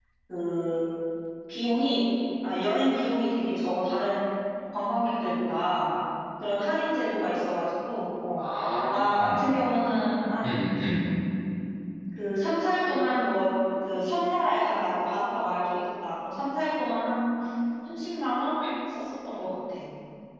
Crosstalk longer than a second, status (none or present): none